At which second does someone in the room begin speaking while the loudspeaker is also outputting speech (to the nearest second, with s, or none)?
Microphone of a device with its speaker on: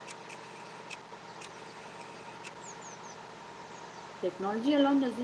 4 s